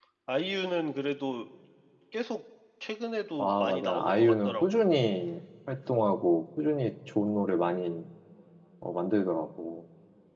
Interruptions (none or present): present